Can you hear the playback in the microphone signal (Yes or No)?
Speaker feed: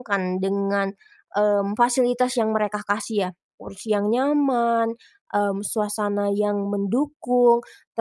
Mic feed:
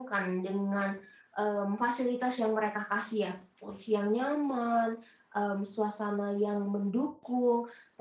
Yes